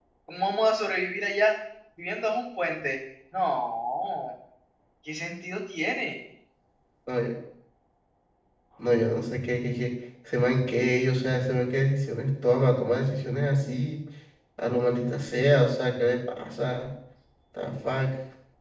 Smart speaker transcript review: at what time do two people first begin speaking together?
none

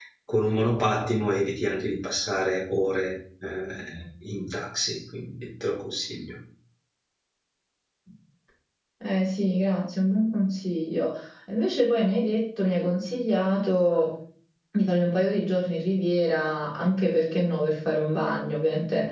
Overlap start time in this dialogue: none

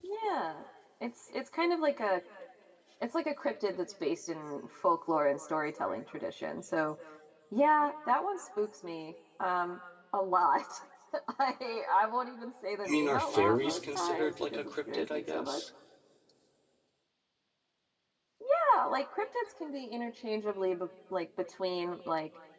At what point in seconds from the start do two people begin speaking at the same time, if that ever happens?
12.8 s

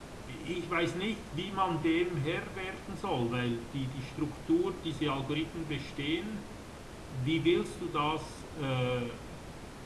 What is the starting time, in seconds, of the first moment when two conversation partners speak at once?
none

